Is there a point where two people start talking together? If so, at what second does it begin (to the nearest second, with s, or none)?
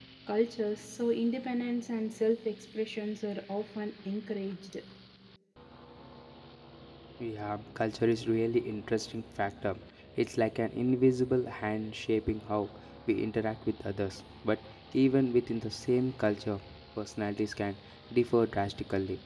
none